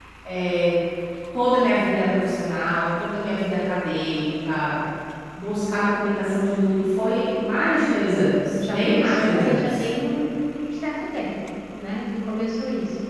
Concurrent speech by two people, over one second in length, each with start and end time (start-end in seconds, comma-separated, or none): 8.5-9.8